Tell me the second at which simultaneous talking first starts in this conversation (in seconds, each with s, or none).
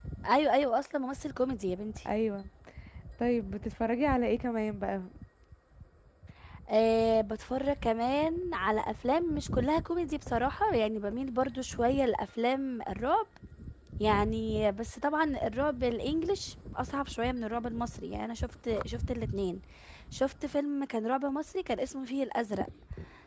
none